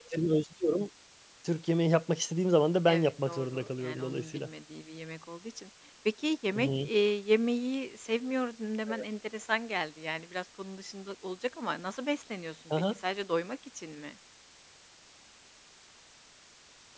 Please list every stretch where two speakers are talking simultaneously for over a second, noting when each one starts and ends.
2.9-4.5

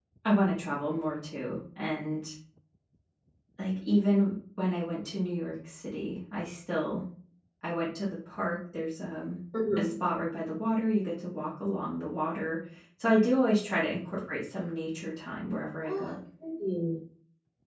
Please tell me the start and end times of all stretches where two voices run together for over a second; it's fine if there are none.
none

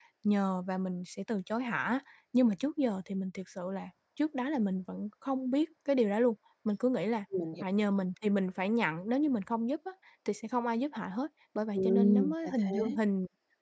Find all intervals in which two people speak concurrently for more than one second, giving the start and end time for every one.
11.7-13.0

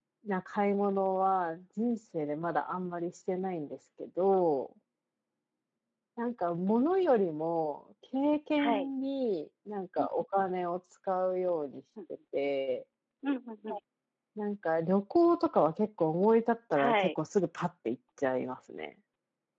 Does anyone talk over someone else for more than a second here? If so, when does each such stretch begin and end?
none

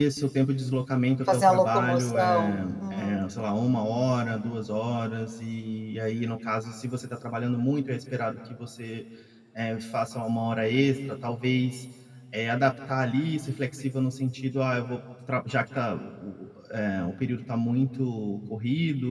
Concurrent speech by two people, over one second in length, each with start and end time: 1.3-3.2

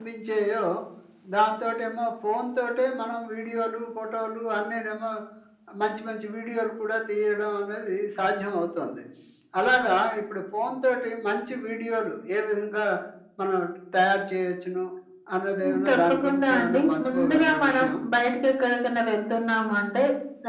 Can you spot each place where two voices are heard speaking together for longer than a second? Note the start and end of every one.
15.6-17.9

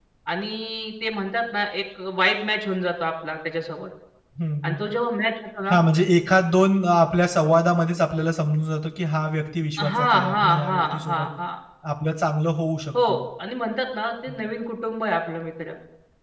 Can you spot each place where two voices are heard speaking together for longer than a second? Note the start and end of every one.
9.8-11.3

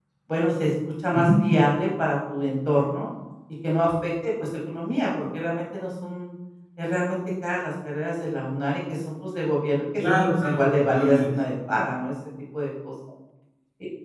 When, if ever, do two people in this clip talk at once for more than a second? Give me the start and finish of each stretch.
10.1-11.4

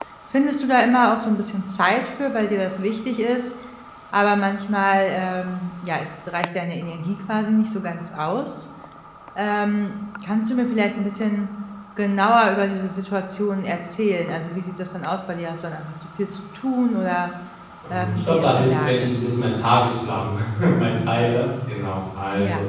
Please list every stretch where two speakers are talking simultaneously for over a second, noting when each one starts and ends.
17.9-19.1

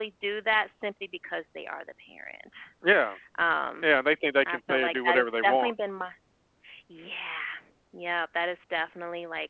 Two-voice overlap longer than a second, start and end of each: 4.4-5.7

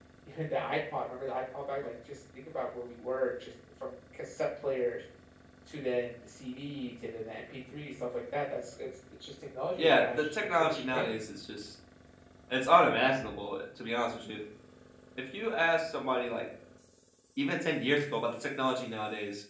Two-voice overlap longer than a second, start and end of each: 9.8-11.0

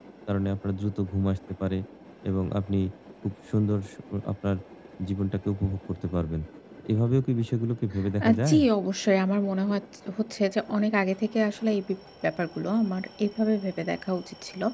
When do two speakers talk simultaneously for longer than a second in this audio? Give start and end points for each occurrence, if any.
none

